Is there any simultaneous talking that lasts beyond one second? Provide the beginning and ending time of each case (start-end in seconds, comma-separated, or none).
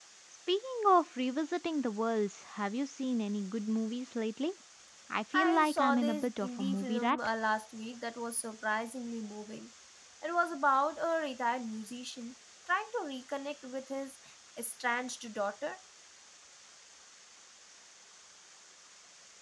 5.3-7.2